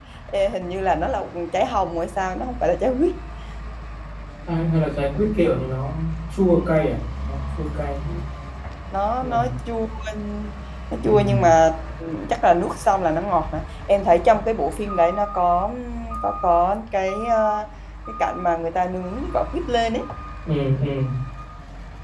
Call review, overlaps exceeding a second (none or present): none